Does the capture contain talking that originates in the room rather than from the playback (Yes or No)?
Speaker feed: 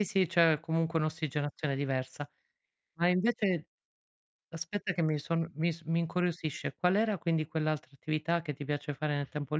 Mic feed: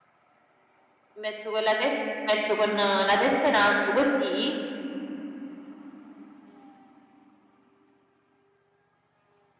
Yes